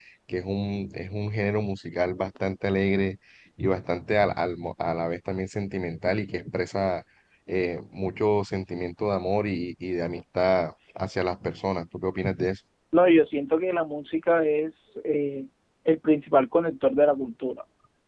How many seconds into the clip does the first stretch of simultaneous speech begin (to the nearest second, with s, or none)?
none